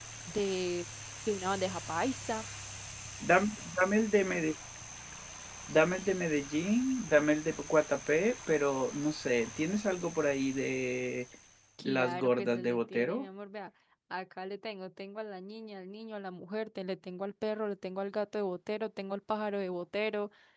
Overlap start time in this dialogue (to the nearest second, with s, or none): 12 s